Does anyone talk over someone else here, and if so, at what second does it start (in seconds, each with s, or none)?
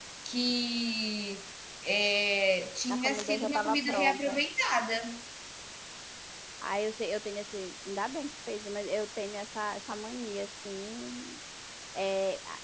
2.9 s